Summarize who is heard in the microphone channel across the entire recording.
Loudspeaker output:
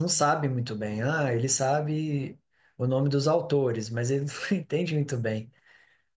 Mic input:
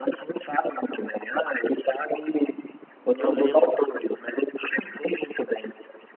both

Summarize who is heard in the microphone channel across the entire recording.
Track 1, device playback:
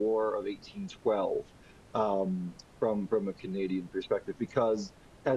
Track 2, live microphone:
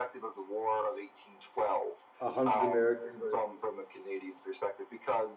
both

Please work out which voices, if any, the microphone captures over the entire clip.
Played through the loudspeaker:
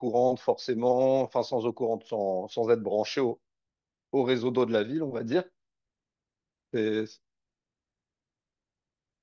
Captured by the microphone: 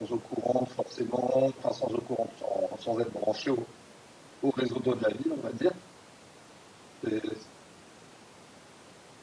echo only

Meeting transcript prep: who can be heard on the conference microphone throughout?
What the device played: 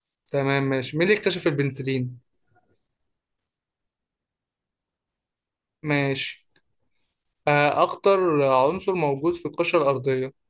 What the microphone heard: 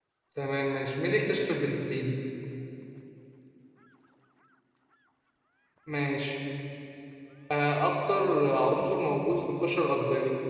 echo only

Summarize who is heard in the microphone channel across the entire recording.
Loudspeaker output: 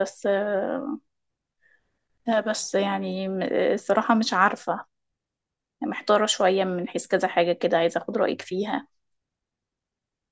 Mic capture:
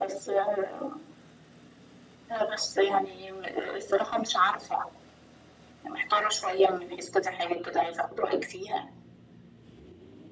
echo only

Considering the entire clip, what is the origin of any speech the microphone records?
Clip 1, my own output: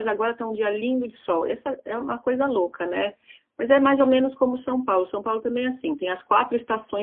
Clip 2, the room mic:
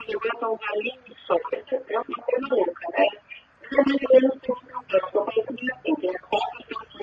echo only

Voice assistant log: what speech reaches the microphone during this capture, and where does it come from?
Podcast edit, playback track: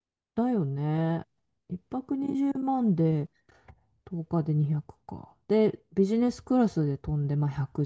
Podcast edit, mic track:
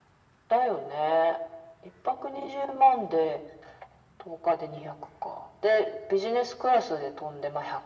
echo only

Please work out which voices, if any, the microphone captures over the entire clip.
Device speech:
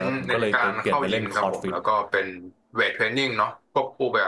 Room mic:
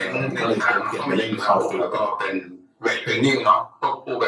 echo only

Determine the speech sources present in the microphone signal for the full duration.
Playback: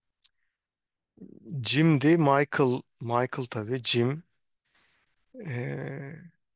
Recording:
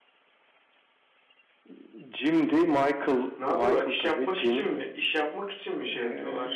both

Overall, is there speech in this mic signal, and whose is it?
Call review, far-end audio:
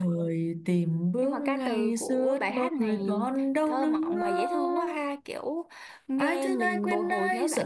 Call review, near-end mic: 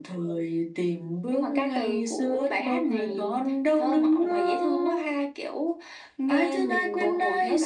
echo only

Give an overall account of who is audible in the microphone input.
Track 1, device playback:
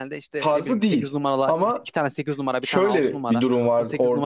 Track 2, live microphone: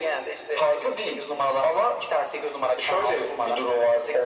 echo only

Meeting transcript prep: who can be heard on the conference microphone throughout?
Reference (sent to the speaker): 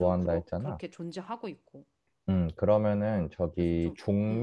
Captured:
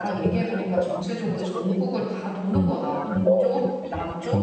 both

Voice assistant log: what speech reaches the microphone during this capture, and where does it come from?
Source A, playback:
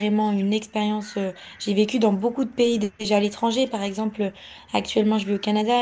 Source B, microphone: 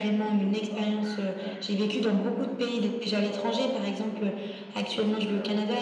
both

